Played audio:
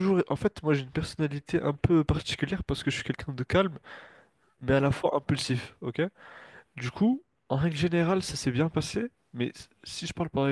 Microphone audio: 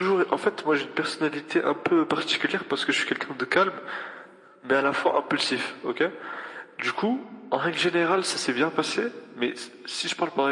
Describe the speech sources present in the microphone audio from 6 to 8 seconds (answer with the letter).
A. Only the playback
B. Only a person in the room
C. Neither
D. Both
A